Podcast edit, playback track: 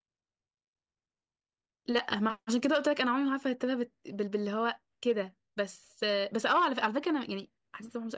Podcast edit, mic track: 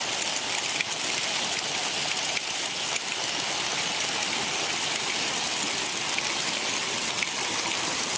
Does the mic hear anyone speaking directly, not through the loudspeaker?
No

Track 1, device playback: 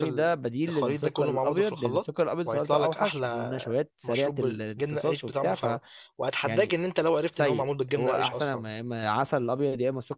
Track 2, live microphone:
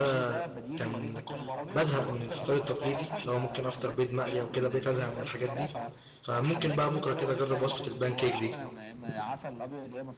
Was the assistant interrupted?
Yes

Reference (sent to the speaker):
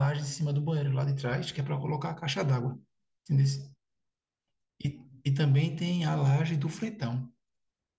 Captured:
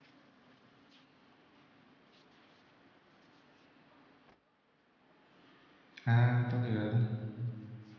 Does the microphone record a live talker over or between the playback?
Yes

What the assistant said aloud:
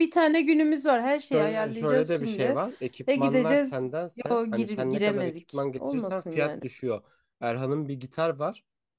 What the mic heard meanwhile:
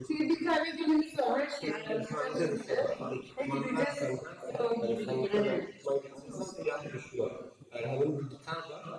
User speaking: No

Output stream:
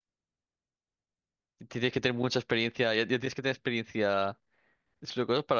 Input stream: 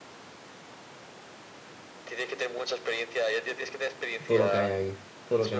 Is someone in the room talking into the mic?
Yes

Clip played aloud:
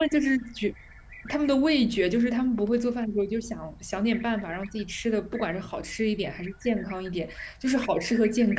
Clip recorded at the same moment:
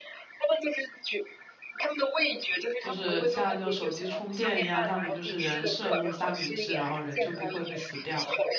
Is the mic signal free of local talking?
No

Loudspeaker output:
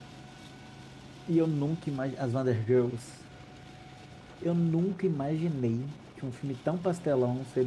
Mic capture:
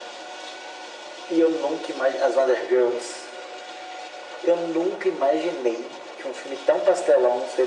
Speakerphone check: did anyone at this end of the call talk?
No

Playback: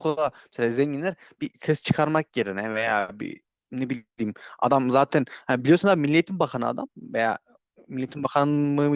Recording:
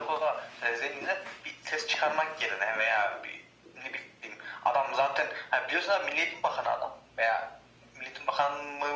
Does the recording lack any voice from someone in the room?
Yes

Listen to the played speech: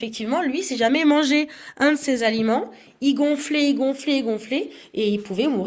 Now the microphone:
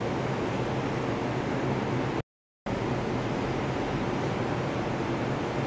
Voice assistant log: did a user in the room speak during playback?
No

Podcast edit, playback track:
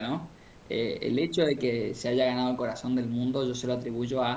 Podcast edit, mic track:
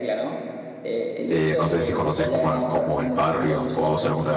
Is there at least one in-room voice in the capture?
Yes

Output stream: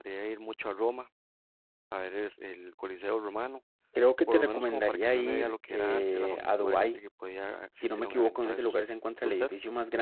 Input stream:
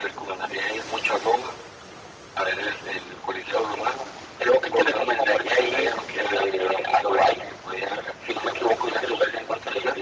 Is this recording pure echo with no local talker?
Yes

